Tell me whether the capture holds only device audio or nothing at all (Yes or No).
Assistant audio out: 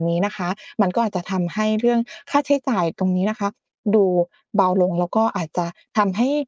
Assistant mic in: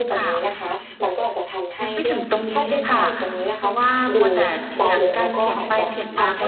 No